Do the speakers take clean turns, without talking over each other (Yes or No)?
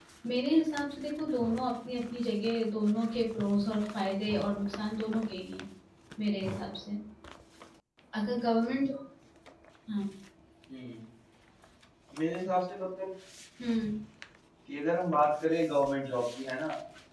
Yes